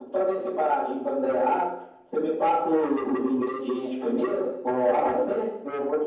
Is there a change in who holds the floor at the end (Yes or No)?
Yes